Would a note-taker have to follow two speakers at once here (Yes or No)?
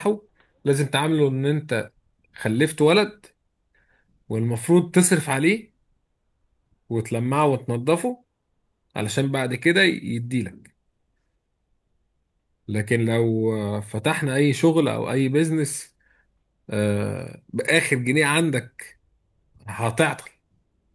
No